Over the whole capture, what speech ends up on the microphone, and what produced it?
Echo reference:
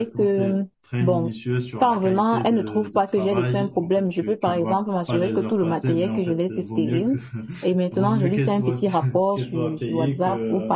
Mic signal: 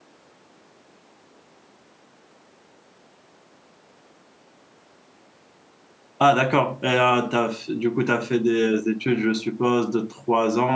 user only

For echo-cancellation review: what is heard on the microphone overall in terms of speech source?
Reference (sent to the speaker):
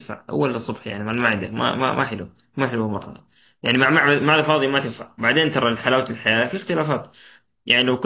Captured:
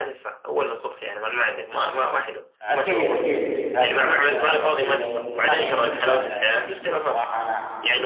both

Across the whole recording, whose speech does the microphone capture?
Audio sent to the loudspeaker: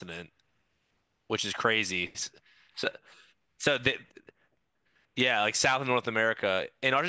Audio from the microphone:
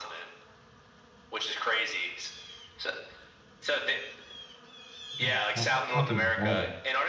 both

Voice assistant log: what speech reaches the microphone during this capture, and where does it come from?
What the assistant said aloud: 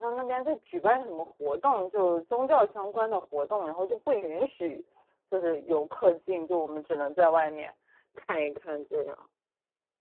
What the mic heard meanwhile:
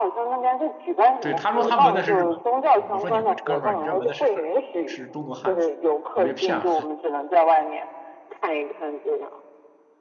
both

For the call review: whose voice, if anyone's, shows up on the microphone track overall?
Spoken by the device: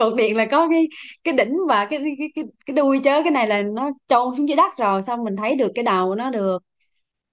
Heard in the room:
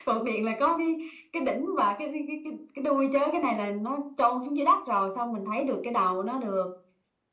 echo only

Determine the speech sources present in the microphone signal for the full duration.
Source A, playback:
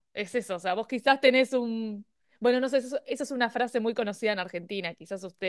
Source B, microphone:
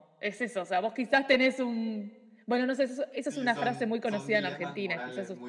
both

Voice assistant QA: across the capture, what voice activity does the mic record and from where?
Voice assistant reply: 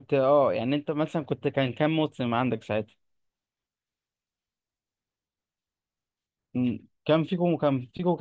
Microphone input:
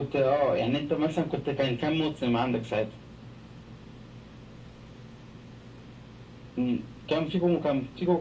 echo only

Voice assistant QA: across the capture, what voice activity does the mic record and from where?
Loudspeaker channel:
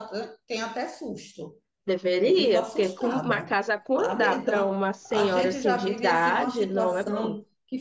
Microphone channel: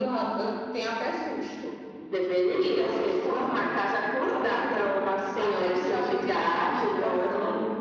echo only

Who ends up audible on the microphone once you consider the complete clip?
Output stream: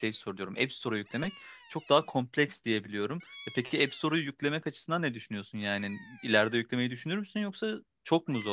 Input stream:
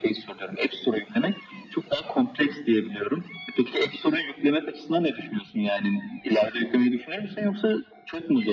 echo only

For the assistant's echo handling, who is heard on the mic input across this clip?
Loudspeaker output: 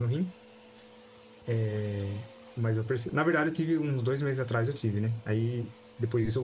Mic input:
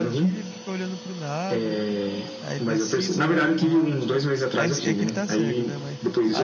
both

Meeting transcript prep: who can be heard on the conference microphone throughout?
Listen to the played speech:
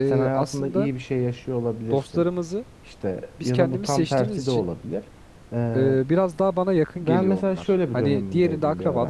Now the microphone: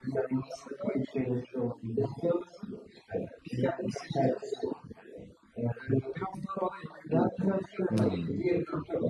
both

